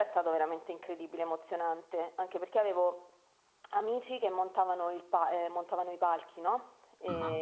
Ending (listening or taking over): listening